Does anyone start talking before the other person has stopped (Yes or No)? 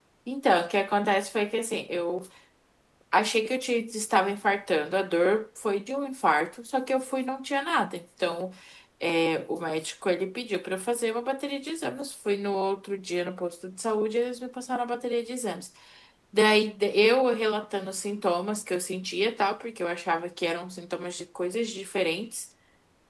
No